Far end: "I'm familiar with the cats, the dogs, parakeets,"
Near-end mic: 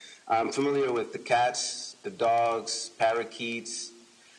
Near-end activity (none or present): none